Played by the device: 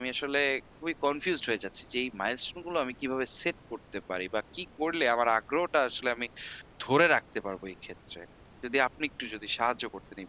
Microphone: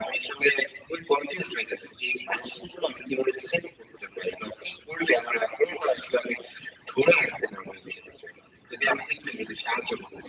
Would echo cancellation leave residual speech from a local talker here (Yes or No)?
No